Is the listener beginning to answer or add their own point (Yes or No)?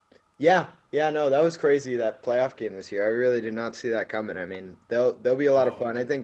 No